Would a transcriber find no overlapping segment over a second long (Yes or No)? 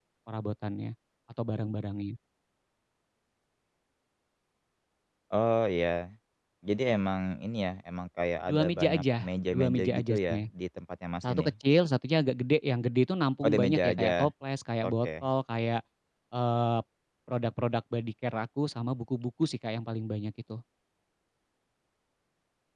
No